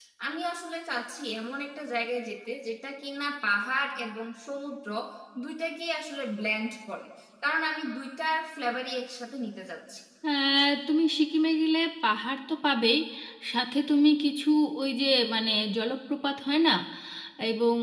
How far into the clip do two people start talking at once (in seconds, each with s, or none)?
none